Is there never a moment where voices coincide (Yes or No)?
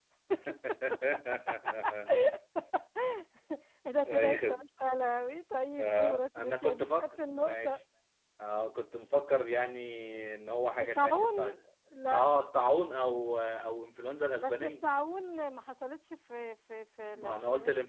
No